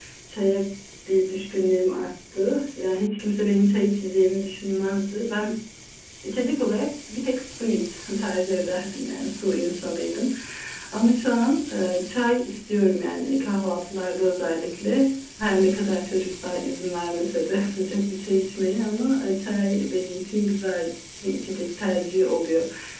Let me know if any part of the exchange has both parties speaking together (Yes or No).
No